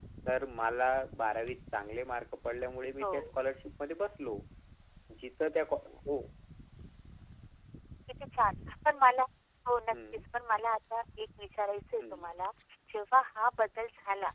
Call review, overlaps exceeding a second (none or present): none